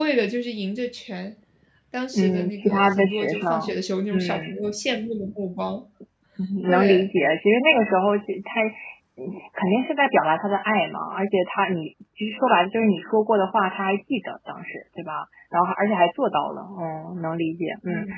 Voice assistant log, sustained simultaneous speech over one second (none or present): present